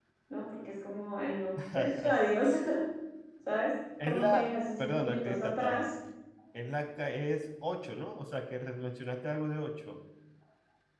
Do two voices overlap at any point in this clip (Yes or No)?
Yes